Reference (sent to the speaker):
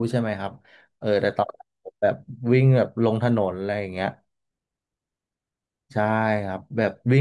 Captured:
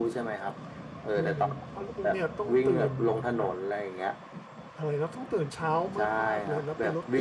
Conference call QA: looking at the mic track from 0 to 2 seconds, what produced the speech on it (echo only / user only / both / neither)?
both